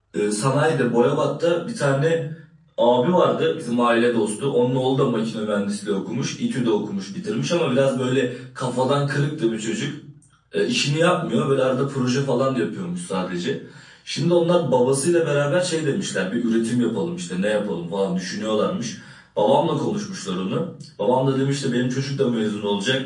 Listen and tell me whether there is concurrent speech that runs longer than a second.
No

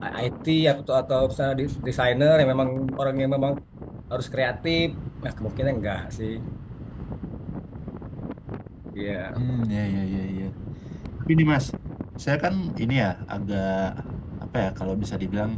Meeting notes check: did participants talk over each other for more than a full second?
No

